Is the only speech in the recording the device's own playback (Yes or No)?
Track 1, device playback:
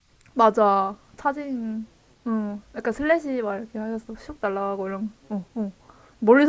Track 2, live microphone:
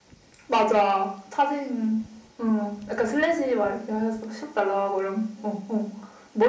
Yes